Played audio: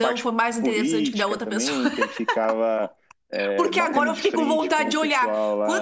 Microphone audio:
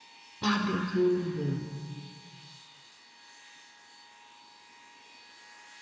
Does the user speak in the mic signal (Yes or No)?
Yes